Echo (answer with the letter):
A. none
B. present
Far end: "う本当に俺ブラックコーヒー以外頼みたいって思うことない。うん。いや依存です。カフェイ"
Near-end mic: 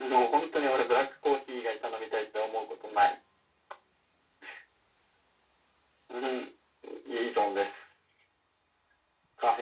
B